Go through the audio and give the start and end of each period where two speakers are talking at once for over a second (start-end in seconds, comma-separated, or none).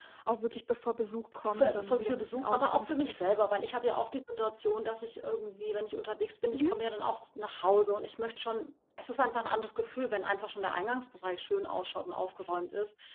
1.5-3.5